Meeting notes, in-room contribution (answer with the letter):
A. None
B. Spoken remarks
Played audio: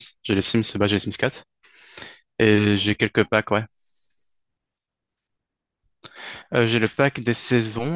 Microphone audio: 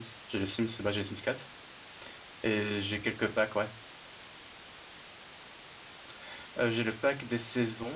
A